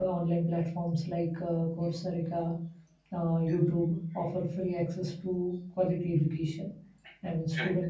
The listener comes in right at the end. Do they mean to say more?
No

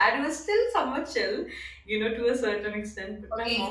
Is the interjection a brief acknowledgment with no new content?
No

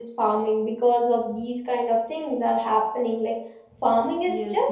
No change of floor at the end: No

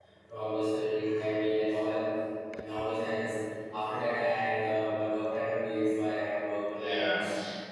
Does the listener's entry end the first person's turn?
Yes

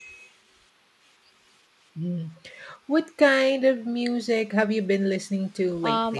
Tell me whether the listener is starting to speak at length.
Yes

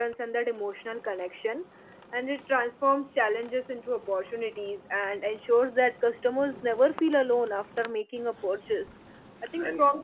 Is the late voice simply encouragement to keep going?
Yes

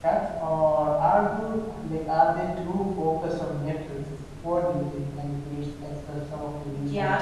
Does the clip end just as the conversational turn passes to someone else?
Yes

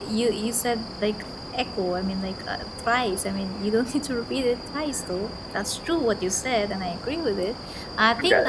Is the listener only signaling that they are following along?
No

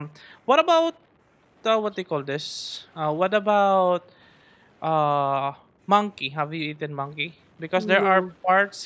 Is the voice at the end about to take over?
No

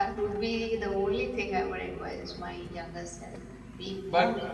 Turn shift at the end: No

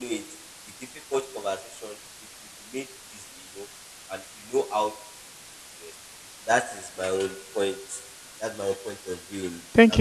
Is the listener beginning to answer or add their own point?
Yes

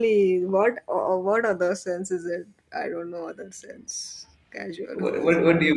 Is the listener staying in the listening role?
No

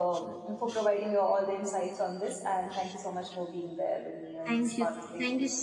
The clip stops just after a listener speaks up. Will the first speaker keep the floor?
No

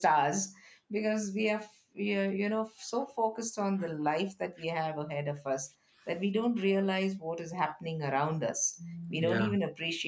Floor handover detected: No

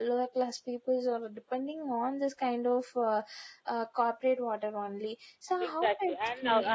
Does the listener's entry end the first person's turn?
Yes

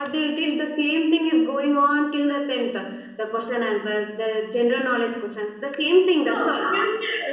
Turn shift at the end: Yes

